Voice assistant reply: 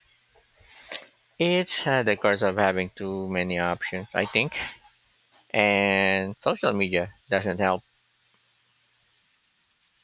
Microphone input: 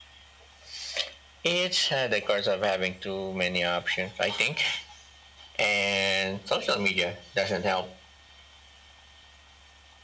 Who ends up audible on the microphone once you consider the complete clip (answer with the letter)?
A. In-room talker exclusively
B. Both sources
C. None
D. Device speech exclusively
D